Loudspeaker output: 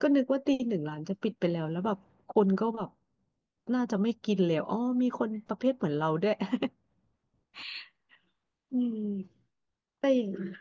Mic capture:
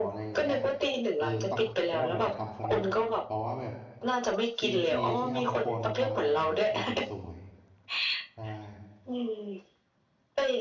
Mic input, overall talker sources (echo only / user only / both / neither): both